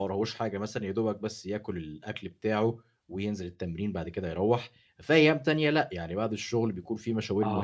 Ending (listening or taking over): taking over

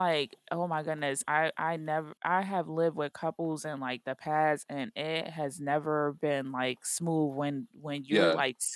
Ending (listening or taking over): listening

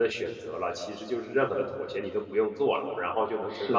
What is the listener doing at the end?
listening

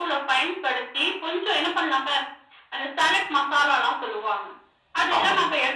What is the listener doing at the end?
listening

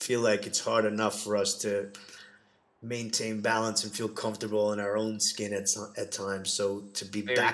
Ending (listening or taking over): listening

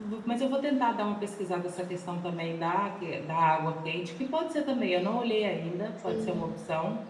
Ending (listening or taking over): taking over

